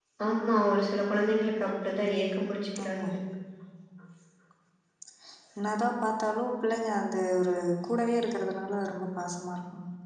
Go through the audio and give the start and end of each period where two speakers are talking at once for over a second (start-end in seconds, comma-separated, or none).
none